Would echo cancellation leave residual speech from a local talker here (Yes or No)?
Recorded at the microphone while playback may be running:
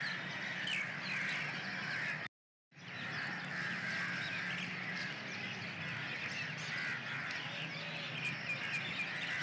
No